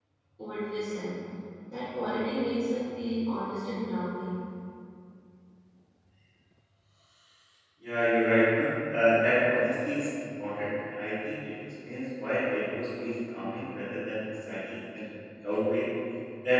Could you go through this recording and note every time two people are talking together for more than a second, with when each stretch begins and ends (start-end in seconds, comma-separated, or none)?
none